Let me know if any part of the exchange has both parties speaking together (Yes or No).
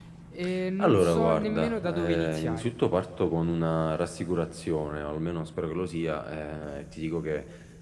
Yes